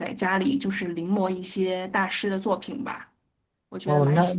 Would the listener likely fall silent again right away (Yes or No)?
No